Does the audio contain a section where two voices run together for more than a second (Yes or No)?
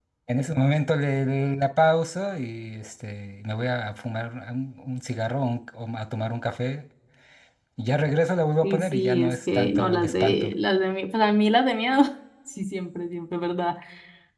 Yes